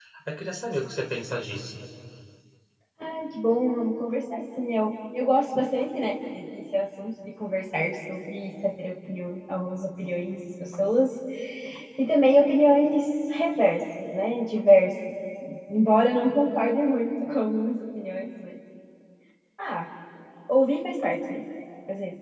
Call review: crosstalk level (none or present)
none